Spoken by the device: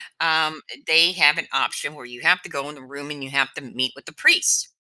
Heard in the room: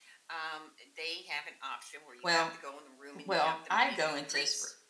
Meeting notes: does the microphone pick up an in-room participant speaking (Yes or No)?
Yes